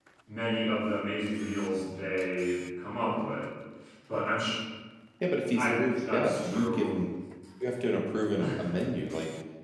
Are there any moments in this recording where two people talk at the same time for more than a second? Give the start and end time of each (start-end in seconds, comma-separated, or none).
5.6-7.0